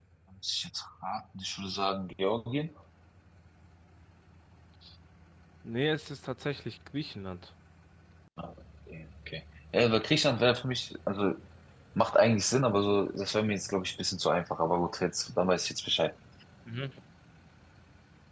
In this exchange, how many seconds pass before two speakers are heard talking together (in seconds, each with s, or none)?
none